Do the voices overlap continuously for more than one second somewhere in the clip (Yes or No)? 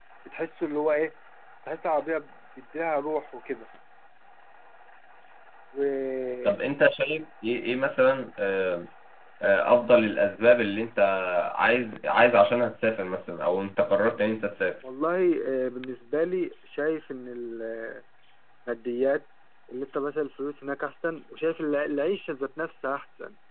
No